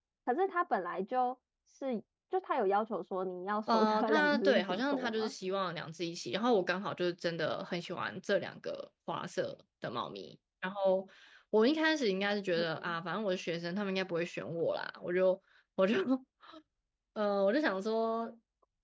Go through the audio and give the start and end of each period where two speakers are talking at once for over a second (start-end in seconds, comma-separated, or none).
3.7-5.3